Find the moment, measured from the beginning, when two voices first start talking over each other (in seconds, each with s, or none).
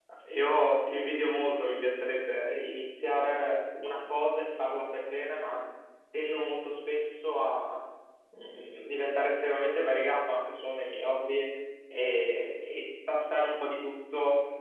none